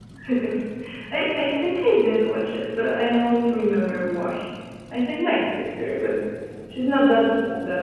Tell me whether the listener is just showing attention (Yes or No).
Yes